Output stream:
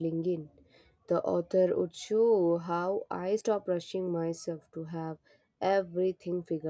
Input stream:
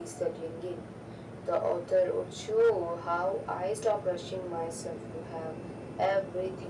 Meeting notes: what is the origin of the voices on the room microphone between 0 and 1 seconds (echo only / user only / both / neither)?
echo only